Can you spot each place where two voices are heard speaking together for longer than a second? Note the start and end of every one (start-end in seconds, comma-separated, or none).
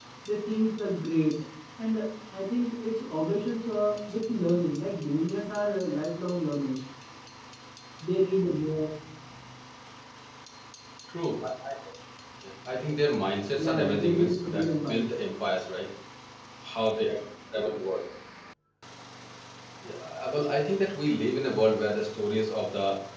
13.6-15.1